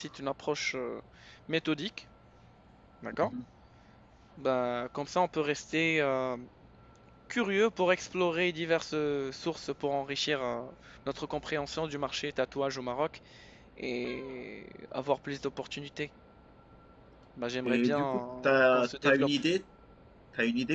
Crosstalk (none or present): present